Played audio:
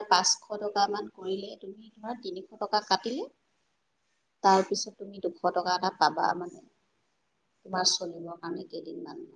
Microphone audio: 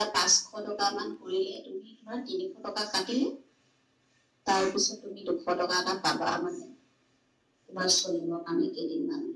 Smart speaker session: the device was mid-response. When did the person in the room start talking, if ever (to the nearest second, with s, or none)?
none